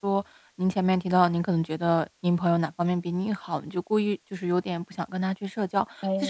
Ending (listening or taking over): listening